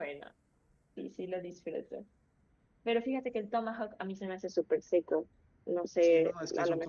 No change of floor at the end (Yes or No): No